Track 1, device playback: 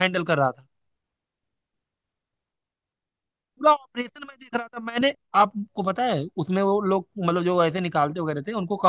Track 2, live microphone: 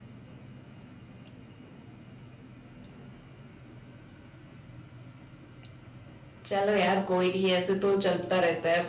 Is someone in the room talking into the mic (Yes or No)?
Yes